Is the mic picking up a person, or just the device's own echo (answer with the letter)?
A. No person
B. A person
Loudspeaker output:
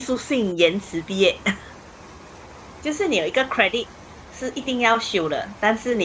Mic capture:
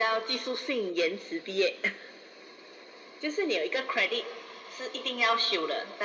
A